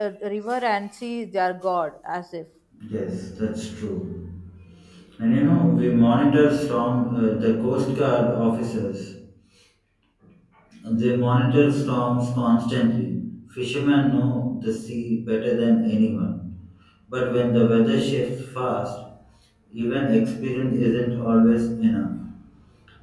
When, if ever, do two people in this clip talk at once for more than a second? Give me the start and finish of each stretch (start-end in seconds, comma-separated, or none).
none